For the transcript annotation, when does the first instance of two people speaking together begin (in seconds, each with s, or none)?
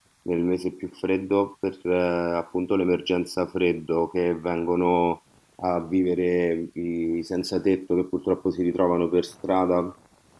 none